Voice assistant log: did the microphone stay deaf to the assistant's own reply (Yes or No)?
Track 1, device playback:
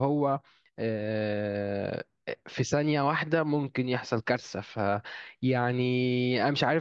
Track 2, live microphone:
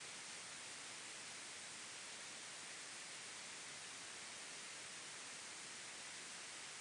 Yes